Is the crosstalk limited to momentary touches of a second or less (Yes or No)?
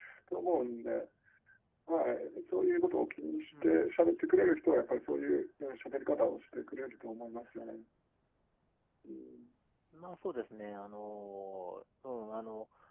Yes